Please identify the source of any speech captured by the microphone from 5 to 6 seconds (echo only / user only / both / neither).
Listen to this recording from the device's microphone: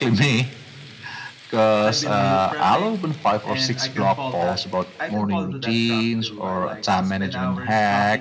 both